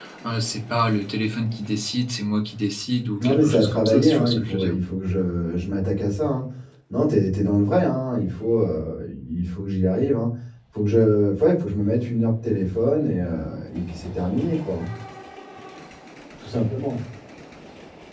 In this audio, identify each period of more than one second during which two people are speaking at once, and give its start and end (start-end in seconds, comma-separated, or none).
3.2-4.7